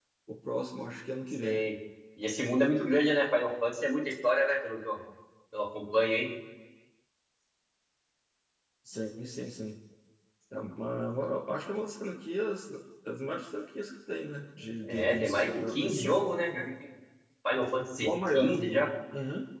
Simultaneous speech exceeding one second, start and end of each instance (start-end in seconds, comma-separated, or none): 14.8-16.2